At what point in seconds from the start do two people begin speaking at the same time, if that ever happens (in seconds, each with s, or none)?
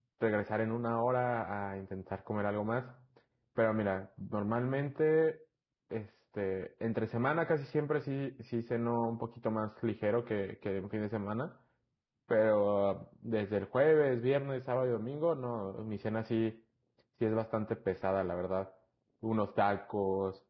none